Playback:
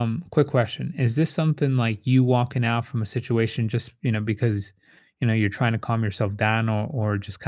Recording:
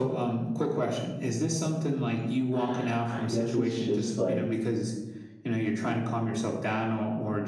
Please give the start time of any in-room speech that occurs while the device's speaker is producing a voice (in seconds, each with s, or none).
2.5 s